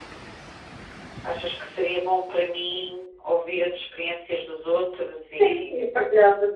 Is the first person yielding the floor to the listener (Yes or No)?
Yes